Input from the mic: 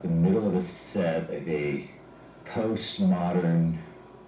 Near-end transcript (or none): none